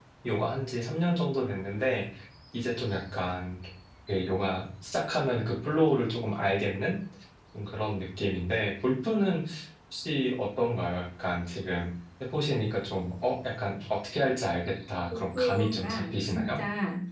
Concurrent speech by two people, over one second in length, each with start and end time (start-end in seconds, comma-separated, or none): 15.4-16.6